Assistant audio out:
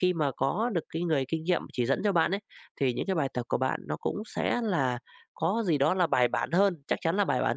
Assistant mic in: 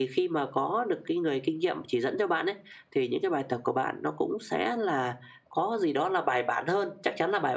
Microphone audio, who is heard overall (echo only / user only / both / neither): echo only